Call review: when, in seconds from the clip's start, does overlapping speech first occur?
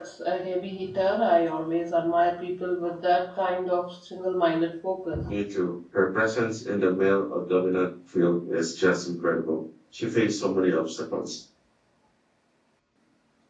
none

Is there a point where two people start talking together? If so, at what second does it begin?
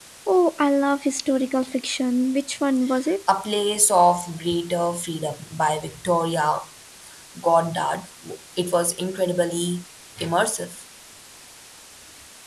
none

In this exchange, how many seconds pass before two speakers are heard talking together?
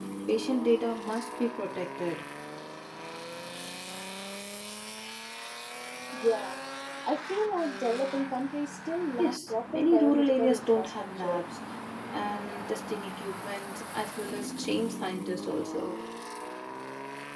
9 s

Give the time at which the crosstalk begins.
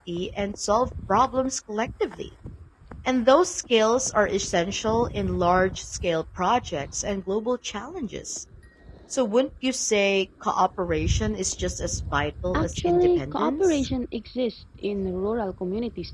13 s

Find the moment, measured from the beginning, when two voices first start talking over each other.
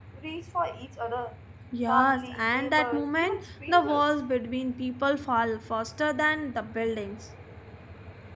2 s

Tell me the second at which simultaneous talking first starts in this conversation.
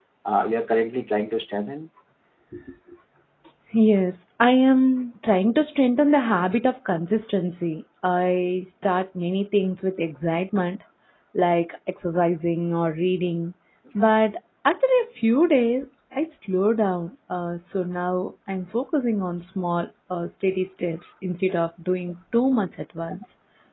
none

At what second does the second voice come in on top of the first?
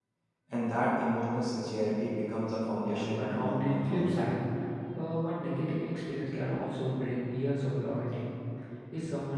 3 s

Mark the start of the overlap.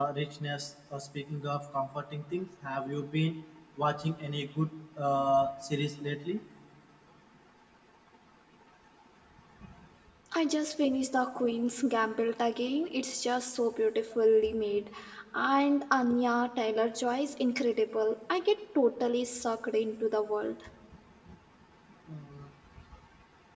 none

